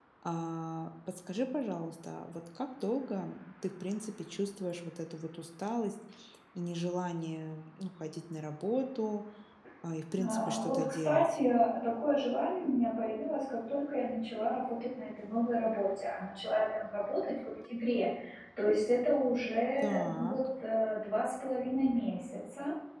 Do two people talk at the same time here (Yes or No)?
Yes